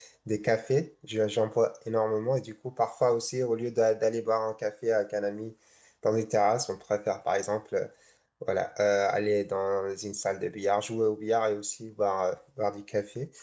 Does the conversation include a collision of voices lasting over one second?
No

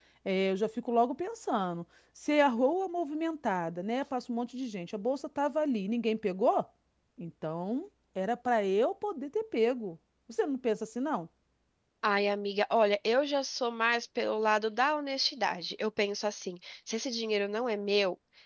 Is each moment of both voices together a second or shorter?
Yes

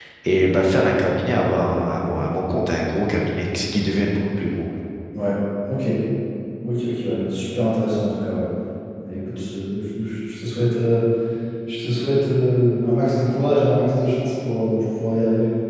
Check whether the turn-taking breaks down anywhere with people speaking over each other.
No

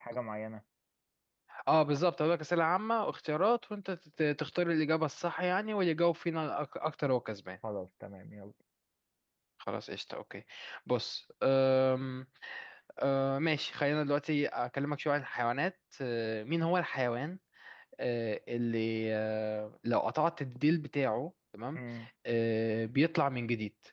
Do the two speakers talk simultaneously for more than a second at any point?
No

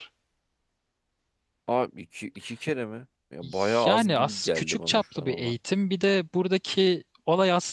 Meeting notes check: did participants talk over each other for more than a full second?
Yes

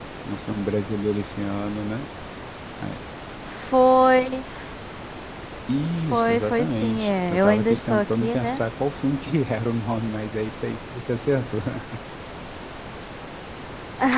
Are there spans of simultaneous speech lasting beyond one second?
Yes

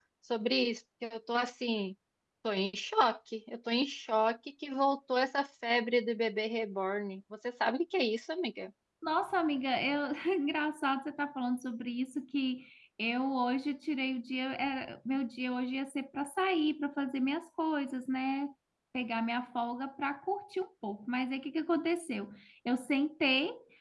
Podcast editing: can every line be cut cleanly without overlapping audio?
Yes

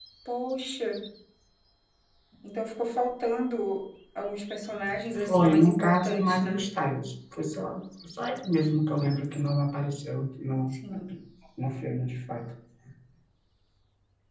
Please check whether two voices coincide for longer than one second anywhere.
Yes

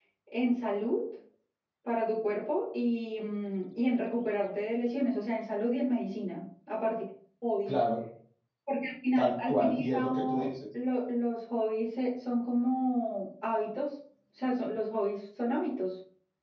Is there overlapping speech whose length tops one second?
Yes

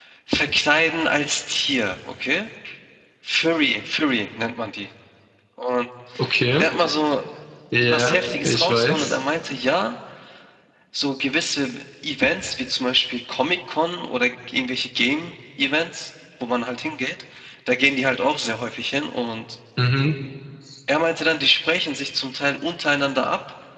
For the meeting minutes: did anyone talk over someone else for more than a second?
Yes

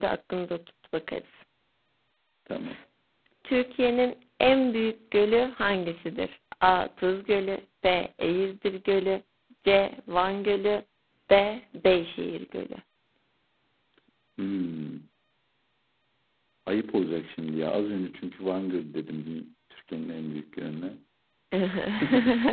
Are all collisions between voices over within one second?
Yes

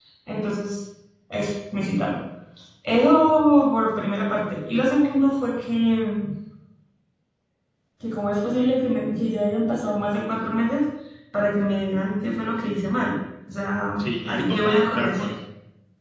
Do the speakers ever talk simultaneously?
Yes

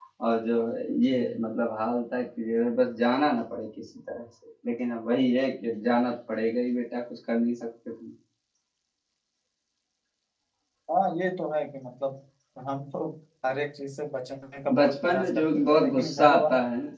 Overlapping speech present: Yes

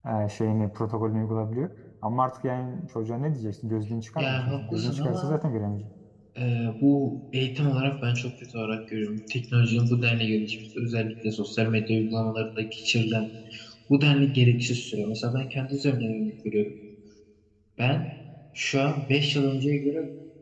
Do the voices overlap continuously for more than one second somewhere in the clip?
Yes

